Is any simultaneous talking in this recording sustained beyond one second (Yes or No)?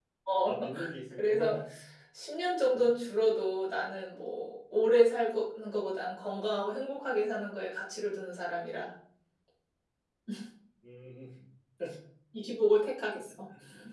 No